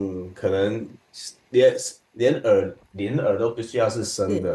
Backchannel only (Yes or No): Yes